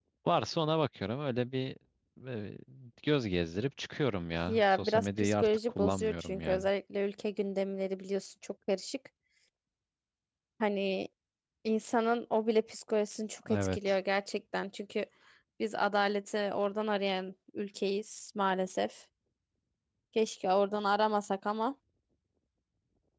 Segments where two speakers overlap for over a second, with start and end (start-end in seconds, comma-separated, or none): 4.5-6.6